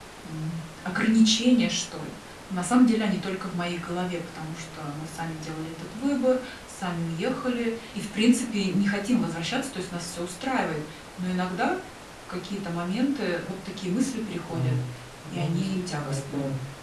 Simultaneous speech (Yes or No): Yes